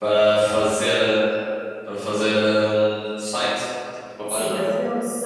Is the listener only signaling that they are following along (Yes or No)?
No